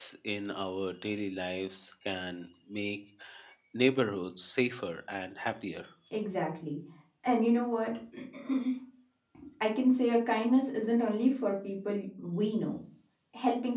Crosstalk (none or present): none